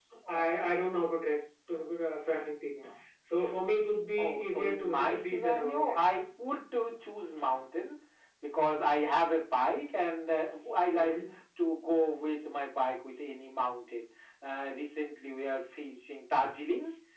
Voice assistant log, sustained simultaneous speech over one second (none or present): present